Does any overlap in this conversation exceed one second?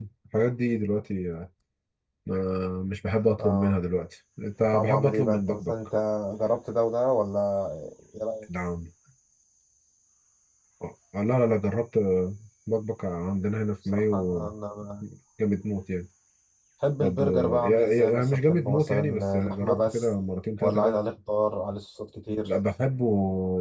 Yes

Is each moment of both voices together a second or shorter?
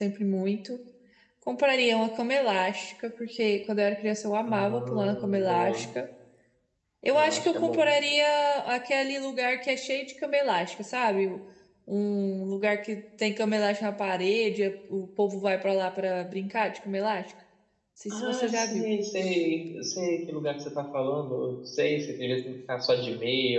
No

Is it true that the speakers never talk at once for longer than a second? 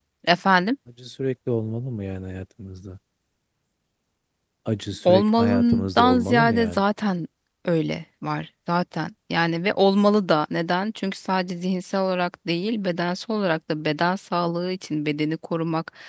No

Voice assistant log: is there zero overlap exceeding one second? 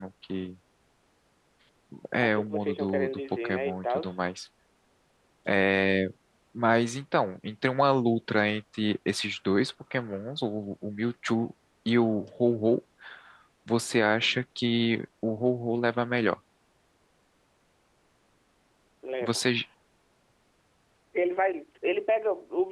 No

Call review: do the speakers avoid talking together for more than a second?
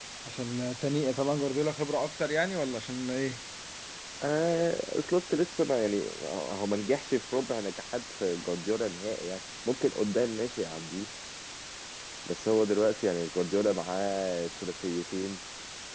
Yes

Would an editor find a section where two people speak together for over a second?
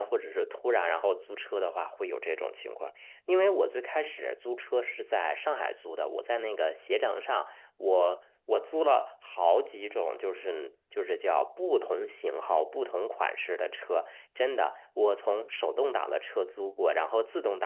No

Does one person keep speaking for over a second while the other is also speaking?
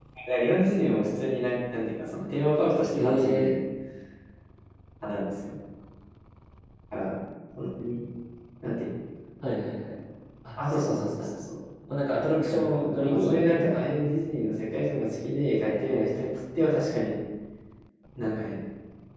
Yes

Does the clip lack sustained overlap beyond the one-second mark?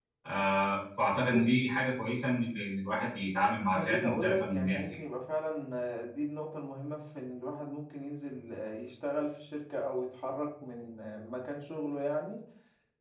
No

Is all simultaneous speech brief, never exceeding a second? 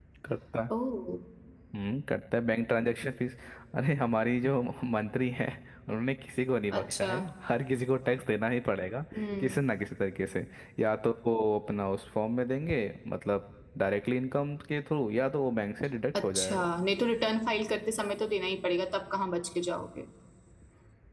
Yes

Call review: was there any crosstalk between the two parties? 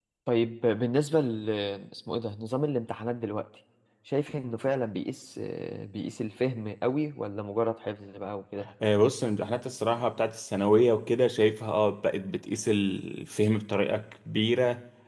No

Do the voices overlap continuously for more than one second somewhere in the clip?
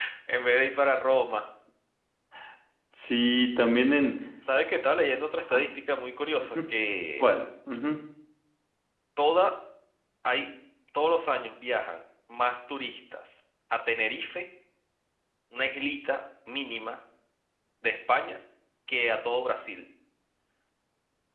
No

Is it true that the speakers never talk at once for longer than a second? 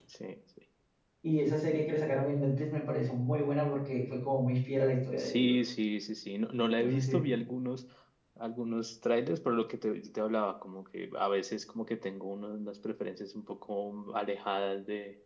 Yes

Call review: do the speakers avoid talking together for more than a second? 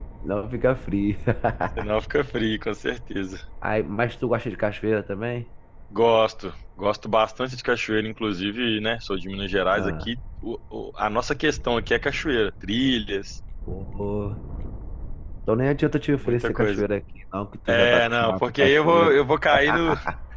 No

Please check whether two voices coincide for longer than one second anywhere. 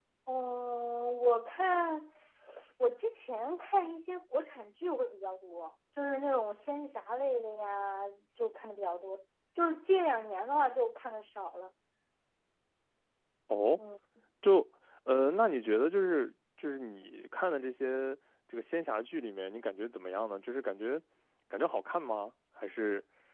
No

